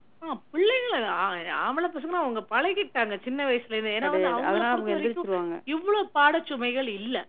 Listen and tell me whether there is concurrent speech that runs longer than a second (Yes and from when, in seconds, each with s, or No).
Yes, from 4.0 s